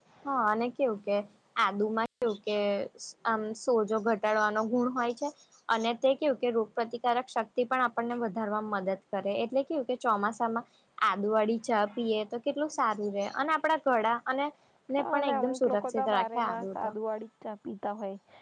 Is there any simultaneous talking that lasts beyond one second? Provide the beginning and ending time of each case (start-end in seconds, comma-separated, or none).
15.0-16.9